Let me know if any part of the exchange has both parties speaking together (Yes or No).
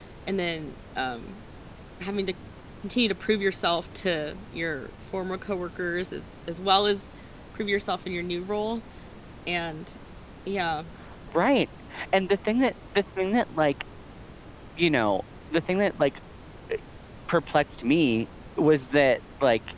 No